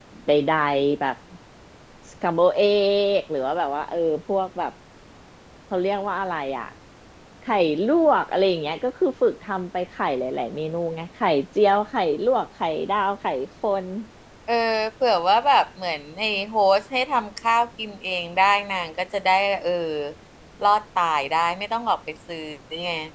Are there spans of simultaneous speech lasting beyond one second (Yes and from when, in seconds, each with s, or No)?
No